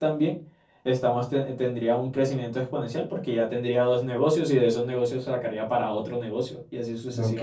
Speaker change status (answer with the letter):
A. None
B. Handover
B